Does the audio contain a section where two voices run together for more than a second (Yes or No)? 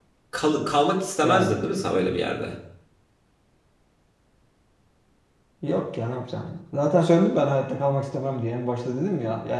No